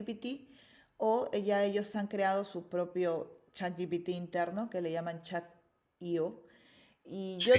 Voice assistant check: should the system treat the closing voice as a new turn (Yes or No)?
No